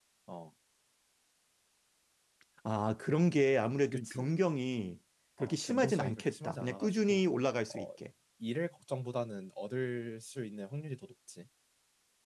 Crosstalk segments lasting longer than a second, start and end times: 5.4-7.2

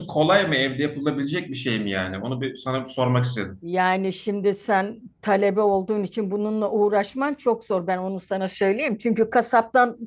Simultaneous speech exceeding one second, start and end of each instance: none

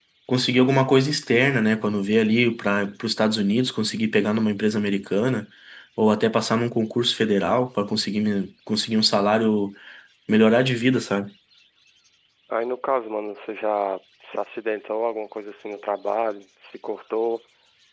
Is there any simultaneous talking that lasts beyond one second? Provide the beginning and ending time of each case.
none

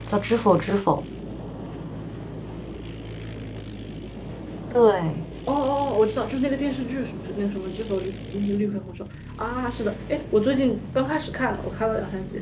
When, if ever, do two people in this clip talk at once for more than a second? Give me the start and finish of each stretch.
none

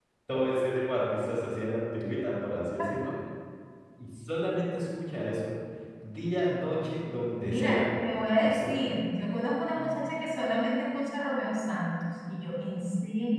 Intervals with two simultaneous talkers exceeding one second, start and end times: none

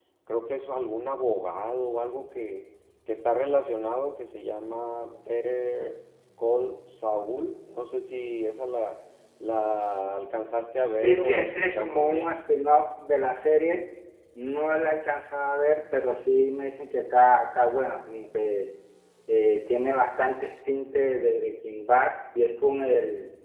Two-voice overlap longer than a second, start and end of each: 11.0-12.3

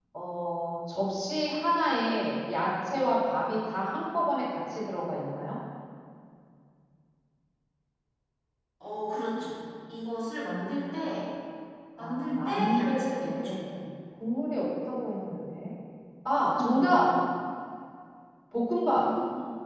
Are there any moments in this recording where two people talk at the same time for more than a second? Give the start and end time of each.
12.0-13.6

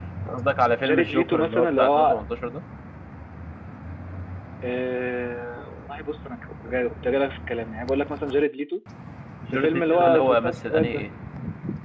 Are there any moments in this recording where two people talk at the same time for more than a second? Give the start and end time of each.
0.8-2.2, 9.5-11.1

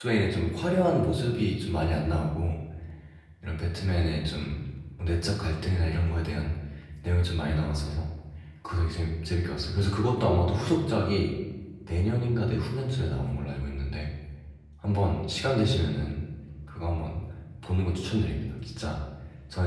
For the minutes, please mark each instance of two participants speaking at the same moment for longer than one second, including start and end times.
none

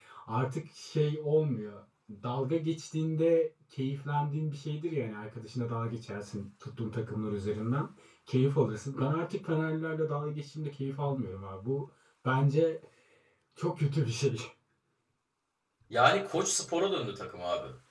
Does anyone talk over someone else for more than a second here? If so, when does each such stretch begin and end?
none

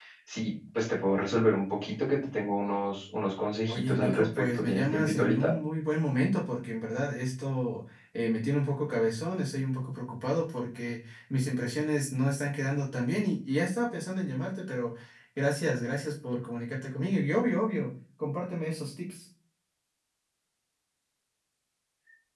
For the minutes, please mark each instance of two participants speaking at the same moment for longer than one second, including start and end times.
3.7-5.5

